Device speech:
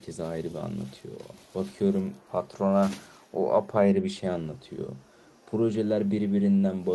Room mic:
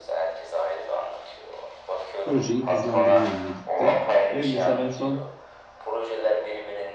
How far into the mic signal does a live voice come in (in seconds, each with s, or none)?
2.2 s